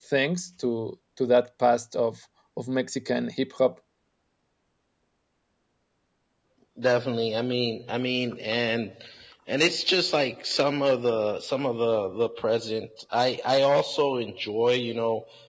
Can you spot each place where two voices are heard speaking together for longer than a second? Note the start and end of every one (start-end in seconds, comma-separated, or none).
none